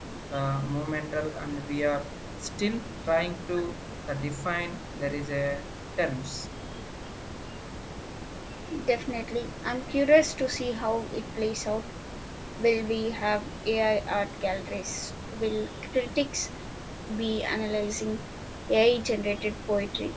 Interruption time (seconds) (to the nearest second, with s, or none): none